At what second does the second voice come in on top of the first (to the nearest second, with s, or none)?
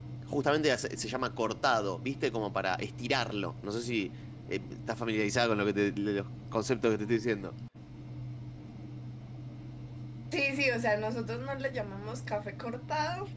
none